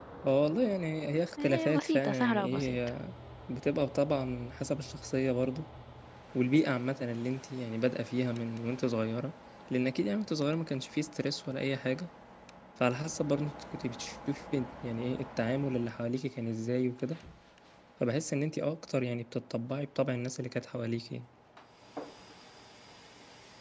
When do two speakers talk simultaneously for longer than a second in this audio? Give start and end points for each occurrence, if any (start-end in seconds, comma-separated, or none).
1.4-2.8